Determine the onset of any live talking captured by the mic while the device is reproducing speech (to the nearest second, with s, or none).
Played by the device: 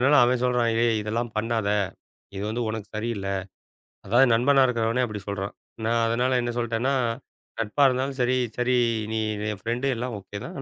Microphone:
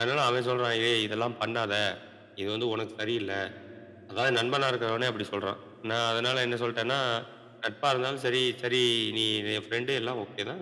none